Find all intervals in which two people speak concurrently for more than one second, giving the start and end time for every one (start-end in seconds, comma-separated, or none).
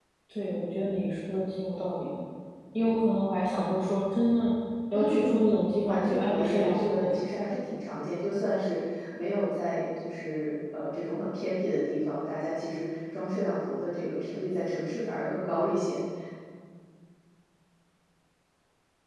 5.8-7.0